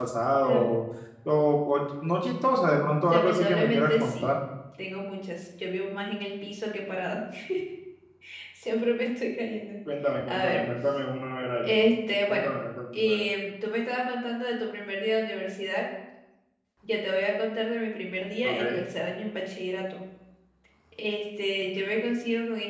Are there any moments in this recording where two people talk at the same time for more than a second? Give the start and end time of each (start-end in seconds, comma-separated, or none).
3.1-4.3